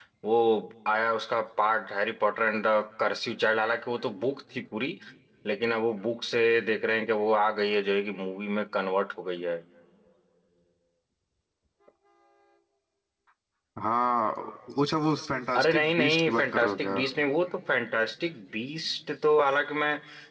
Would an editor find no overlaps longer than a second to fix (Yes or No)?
No